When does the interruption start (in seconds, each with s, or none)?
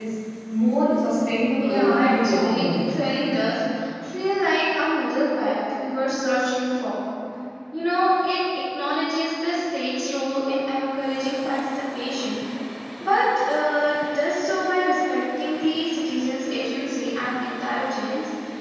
1.6 s